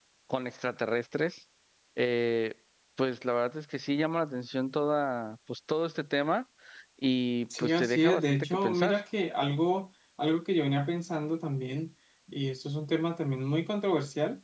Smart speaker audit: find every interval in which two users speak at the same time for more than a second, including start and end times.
7.6-9.0

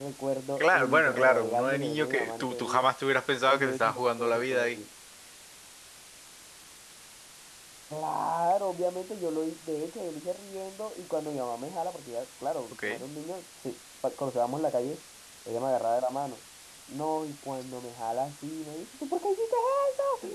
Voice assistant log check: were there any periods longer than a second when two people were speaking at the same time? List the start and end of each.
0.6-2.9, 3.5-4.8

